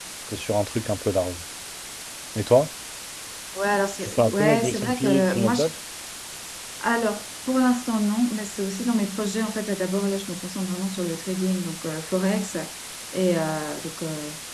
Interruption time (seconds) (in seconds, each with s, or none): 4.0 s